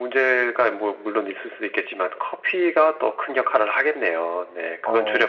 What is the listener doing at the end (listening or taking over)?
taking over